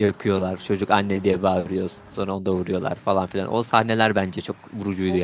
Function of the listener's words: taking over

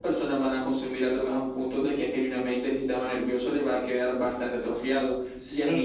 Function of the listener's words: taking over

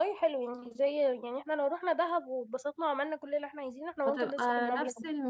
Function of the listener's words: taking over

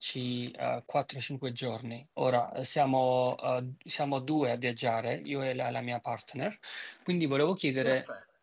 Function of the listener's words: listening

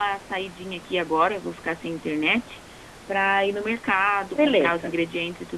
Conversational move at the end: listening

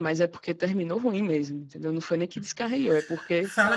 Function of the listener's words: taking over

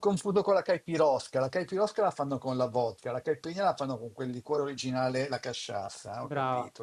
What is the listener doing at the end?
taking over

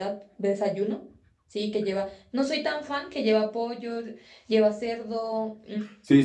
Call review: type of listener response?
taking over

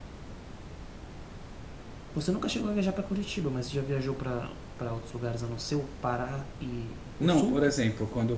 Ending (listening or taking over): taking over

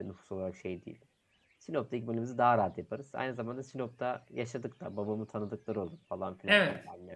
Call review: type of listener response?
taking over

